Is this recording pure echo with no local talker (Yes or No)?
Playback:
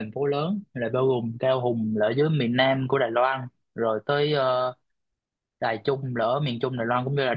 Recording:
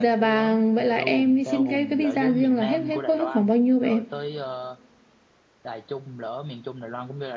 No